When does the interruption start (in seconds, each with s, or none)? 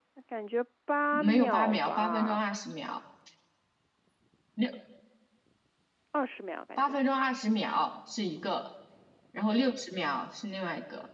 1.1 s